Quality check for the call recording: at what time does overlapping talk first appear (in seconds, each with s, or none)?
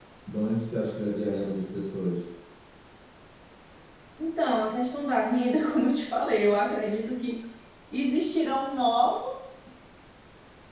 none